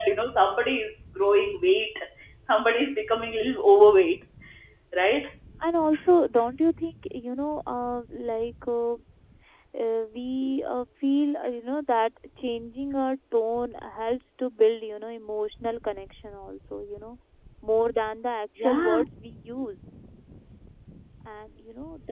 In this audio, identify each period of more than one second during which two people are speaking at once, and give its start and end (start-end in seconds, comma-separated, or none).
none